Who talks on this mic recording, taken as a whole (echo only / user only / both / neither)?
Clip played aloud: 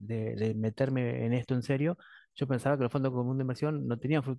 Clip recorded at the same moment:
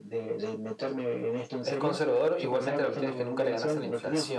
both